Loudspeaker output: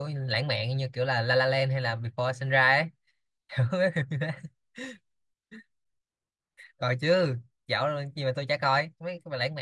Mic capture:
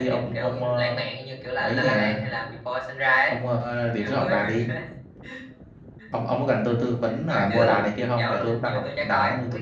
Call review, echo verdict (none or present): present